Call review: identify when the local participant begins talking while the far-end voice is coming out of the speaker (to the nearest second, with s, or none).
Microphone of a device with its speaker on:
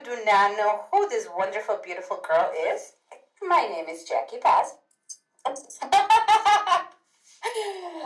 none